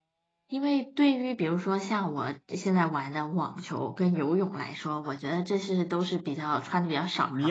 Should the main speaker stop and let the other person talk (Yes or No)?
Yes